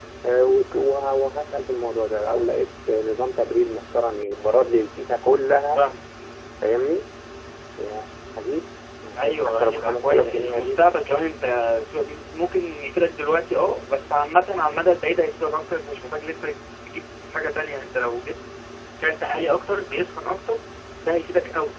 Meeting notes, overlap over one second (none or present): present